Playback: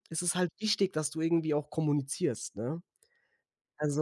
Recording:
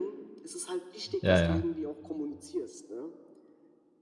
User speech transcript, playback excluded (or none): Ja, ja.